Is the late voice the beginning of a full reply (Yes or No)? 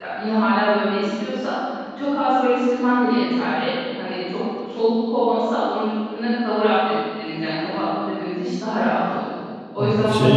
Yes